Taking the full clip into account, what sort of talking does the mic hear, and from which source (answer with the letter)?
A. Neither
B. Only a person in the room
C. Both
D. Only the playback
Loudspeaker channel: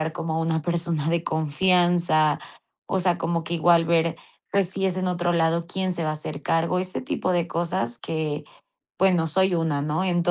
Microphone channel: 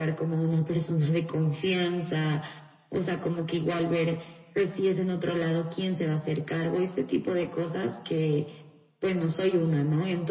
D